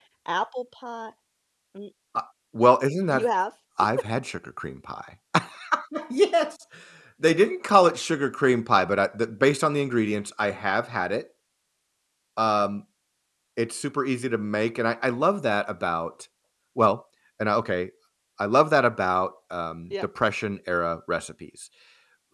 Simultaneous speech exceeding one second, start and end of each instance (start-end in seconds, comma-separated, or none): none